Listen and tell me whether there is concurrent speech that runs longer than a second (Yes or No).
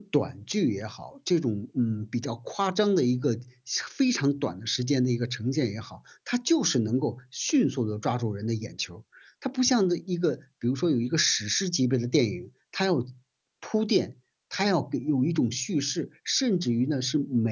No